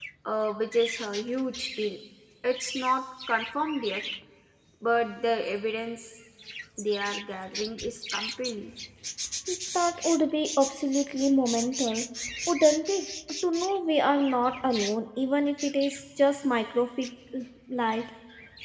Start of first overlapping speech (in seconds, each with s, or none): none